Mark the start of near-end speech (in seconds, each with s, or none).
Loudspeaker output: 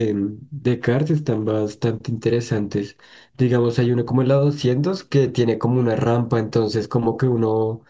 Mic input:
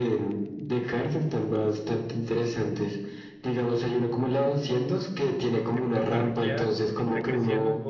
5.7 s